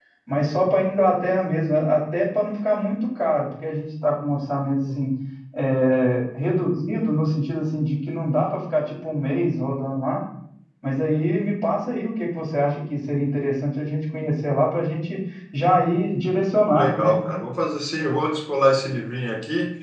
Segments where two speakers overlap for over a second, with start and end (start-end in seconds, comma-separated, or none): none